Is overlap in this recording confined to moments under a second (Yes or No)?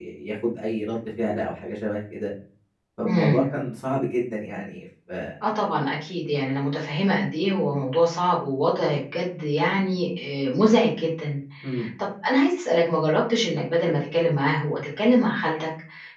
Yes